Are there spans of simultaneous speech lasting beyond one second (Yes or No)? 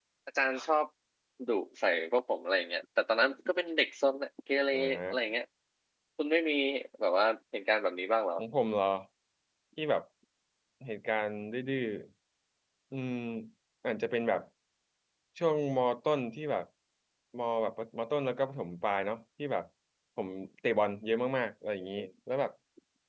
No